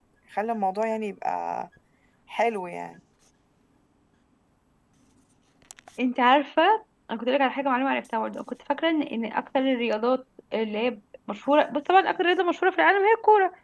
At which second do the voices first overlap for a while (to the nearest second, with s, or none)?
none